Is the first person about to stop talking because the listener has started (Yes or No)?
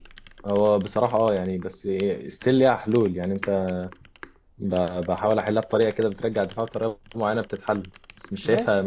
Yes